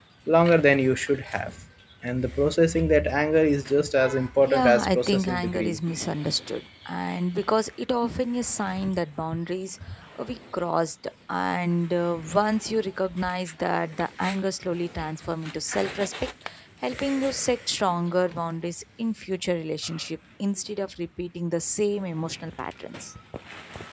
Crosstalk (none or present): present